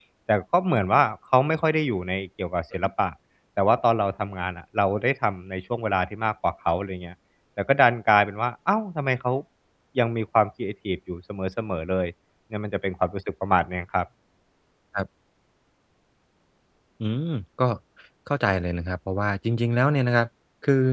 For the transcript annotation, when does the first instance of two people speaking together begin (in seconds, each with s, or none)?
none